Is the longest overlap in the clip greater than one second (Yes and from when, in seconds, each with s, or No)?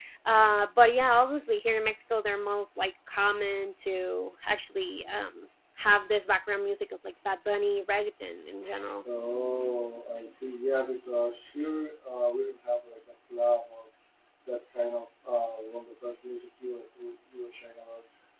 No